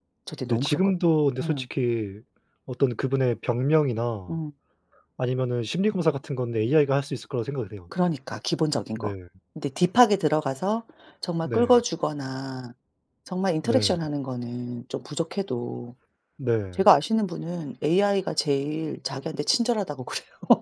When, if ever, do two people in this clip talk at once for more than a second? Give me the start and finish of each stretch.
none

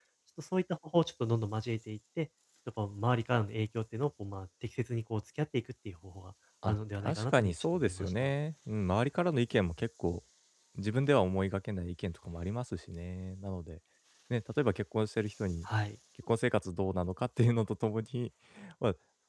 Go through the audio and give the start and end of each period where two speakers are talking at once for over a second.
6.7-8.3

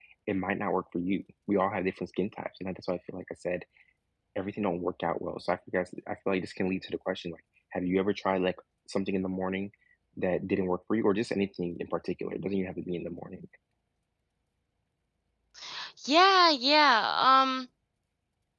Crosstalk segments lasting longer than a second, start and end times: none

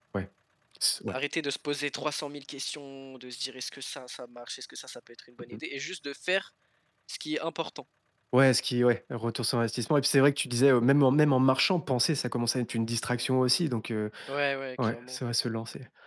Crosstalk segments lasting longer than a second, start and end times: none

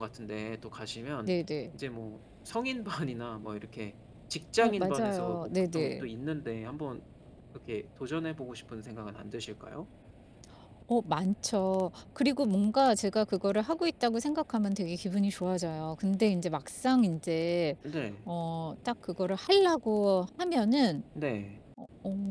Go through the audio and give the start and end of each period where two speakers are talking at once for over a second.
4.6-6.1

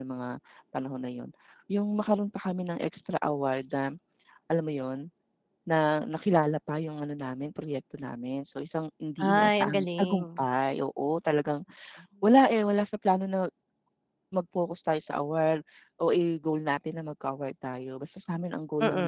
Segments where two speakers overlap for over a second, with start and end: 9.2-10.4

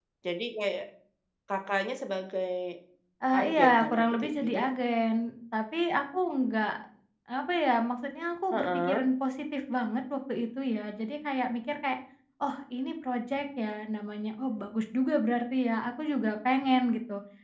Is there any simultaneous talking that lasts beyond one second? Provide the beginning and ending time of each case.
3.3-4.7

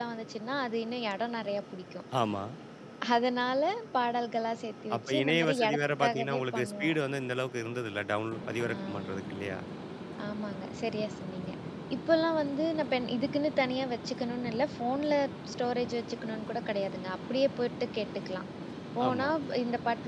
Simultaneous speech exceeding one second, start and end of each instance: 5.0-6.9

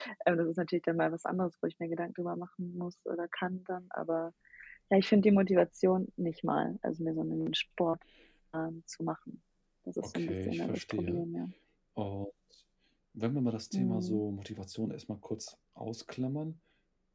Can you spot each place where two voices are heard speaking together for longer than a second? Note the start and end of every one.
10.0-11.2

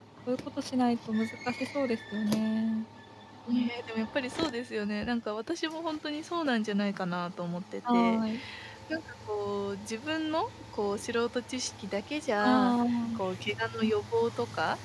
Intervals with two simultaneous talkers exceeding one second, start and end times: none

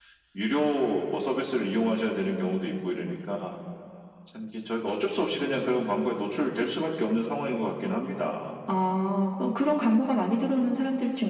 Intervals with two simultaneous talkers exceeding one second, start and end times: none

